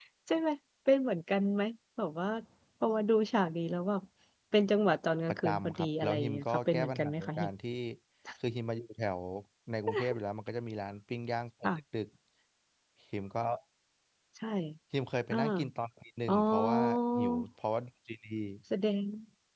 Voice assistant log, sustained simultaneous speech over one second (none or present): present